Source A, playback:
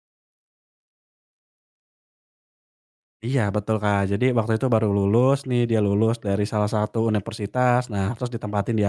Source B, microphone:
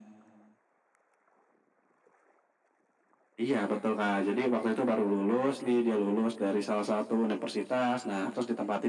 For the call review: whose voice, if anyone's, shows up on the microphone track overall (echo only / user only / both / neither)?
echo only